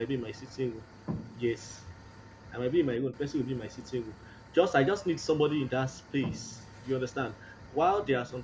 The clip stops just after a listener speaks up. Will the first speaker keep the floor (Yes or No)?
Yes